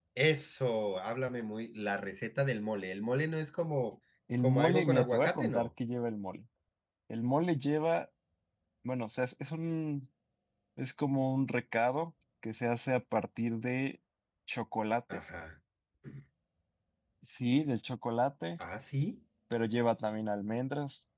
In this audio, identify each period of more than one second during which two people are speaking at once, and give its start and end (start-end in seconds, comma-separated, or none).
4.4-5.7